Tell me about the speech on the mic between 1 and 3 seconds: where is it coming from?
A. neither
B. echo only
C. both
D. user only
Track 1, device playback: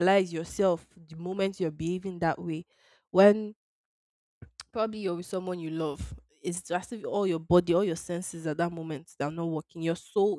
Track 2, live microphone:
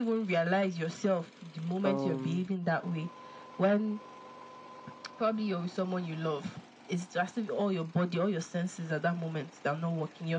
C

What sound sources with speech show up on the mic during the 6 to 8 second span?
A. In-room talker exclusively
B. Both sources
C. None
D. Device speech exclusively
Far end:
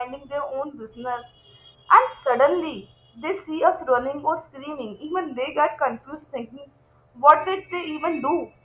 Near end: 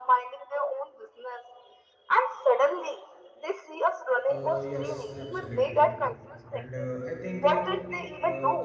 B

